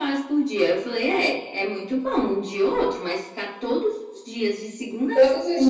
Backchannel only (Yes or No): No